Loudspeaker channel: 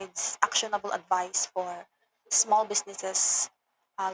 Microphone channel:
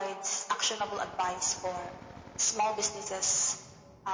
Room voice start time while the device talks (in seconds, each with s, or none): none